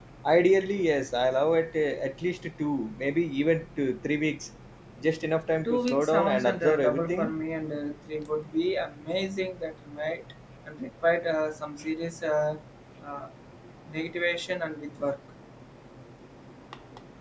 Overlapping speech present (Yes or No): Yes